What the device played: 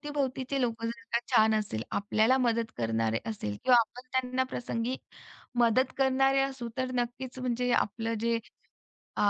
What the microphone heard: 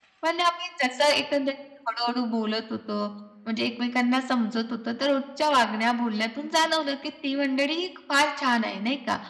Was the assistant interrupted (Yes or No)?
Yes